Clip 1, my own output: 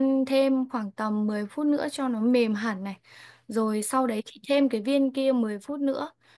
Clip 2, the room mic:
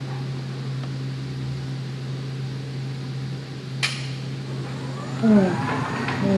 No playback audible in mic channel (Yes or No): Yes